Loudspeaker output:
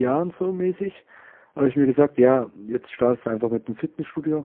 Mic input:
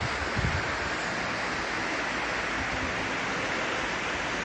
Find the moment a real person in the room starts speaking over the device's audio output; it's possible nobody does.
none

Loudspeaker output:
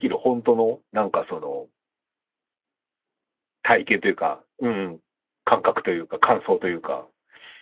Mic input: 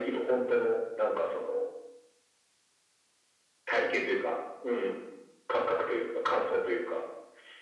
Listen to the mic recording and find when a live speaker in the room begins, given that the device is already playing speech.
none

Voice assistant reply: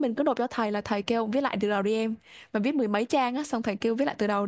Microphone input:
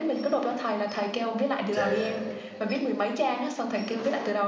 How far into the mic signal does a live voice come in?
1.7 s

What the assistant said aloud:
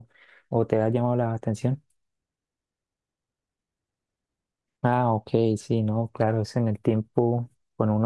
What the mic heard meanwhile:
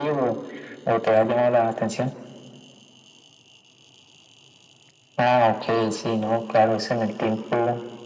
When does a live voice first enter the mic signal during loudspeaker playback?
none

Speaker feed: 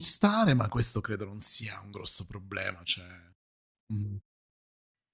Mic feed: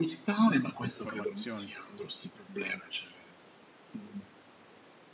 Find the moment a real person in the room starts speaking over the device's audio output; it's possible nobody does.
0.9 s

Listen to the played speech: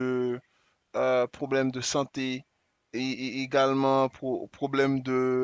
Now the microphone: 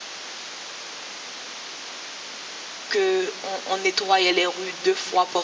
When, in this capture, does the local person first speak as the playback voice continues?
2.9 s

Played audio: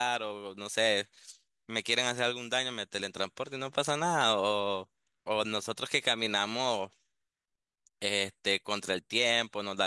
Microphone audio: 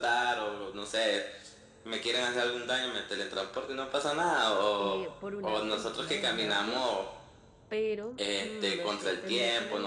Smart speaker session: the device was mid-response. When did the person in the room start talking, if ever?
4.8 s

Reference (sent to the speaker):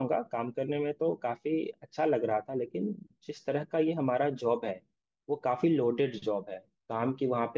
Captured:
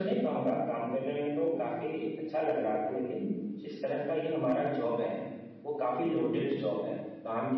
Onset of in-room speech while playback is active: none

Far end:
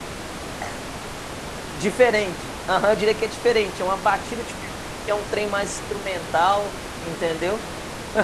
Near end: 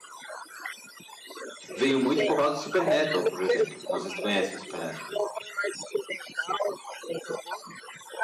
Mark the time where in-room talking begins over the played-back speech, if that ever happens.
1.7 s

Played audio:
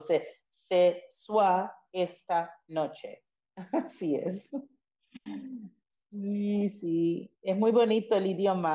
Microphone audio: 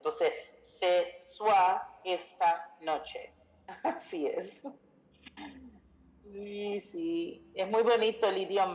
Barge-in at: none

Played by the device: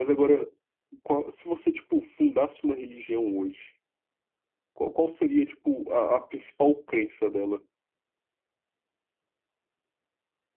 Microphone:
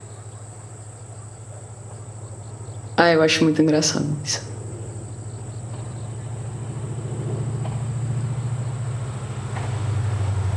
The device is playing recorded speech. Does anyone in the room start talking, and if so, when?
3.0 s

